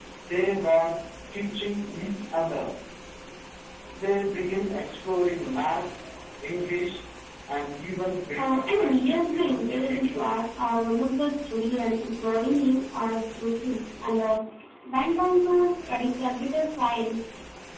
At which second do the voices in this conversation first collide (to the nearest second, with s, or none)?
8 s